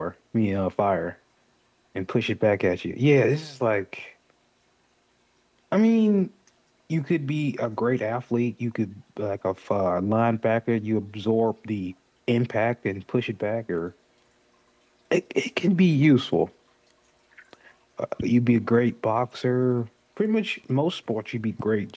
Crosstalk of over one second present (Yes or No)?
No